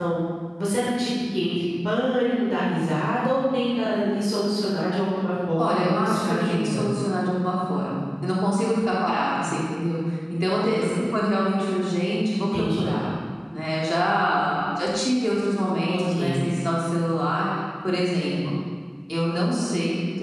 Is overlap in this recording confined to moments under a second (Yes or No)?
No